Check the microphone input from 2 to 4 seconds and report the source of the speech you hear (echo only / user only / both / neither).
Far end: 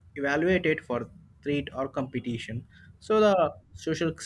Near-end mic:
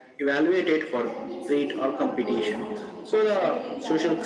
both